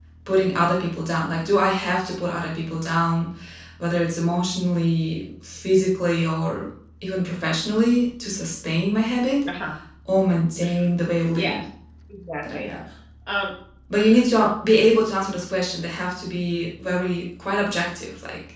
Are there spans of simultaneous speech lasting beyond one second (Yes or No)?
No